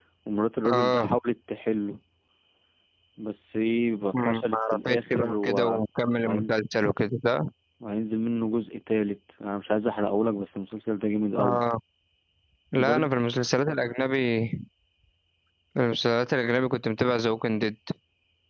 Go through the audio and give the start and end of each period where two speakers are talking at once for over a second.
4.1-5.8

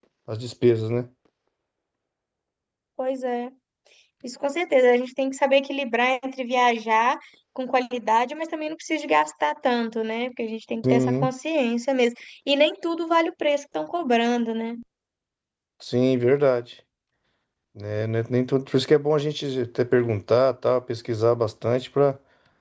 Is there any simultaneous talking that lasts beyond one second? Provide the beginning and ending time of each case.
none

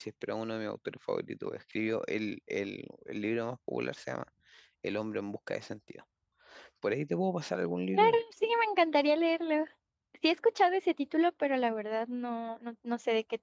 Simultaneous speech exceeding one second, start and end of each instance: none

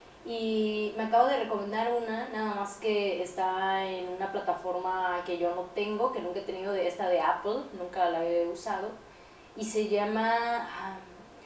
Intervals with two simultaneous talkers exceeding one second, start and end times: none

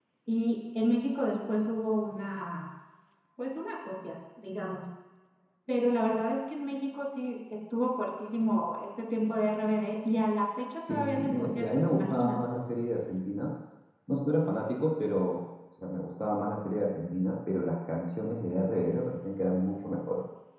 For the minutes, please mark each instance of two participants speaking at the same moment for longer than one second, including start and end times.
10.9-12.4

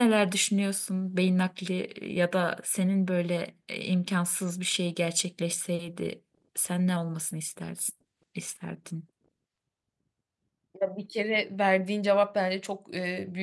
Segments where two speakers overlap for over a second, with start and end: none

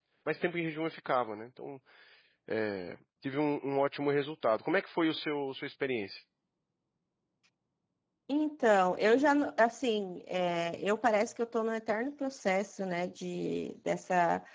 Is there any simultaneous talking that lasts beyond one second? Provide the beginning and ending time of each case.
none

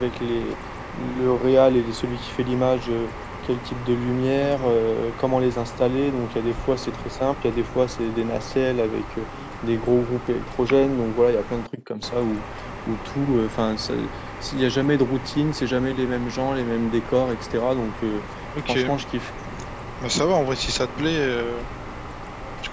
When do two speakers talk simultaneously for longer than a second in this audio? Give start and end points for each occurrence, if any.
none

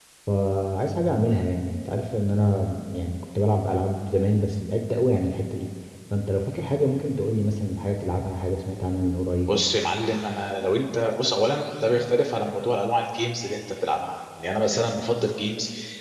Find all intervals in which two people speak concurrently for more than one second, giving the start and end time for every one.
none

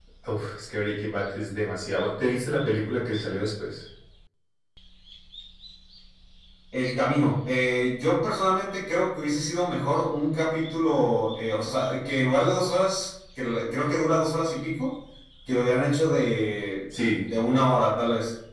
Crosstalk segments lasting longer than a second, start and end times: none

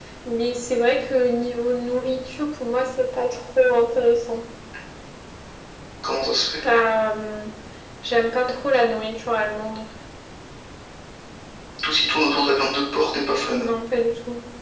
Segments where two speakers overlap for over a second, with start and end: none

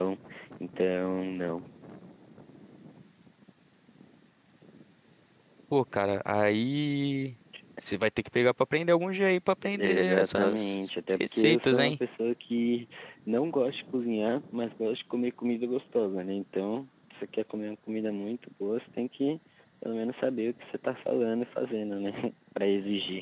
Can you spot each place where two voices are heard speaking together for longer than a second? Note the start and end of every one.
9.8-11.9

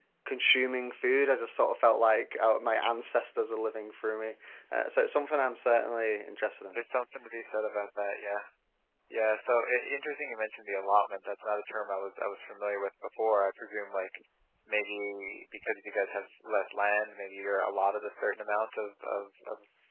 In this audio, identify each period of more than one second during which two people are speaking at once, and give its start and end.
none

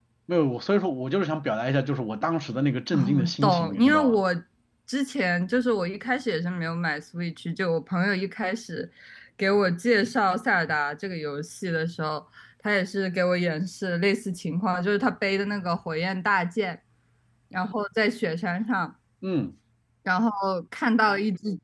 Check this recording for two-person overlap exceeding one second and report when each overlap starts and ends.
2.9-4.2

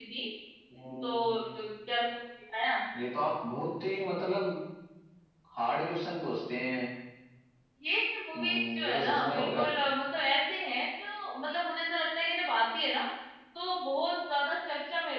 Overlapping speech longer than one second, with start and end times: 8.3-9.6

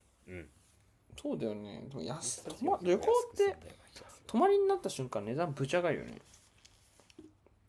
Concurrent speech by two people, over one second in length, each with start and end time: 2.2-3.5

